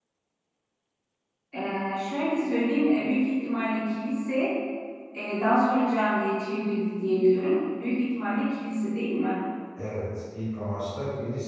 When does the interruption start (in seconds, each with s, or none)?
none